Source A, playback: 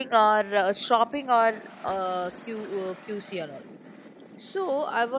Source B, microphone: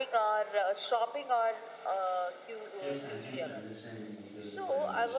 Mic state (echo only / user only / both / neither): both